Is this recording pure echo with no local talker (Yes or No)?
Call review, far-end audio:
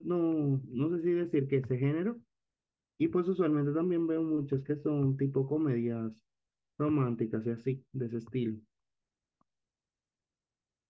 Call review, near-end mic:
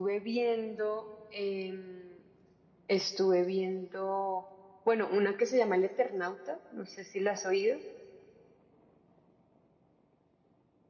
No